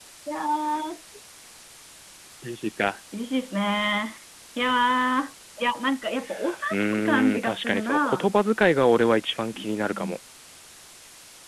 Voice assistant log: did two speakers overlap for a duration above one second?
Yes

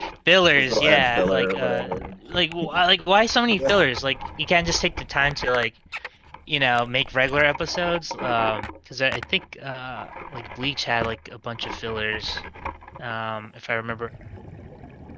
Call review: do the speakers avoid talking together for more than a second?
No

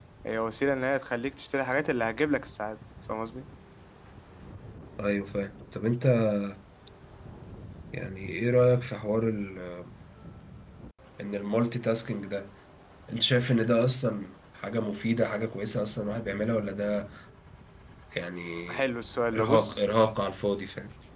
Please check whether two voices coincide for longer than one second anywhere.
No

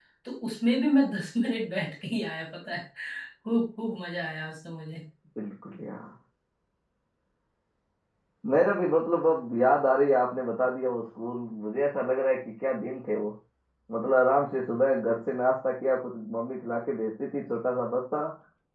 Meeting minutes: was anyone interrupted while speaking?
No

